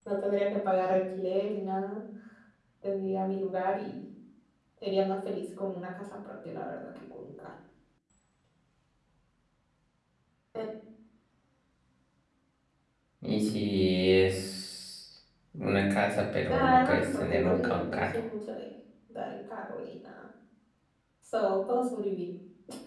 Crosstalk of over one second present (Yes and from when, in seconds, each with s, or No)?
Yes, from 16.5 s